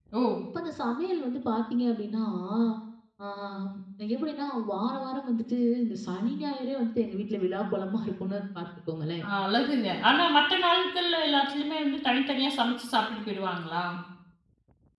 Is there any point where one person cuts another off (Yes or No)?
No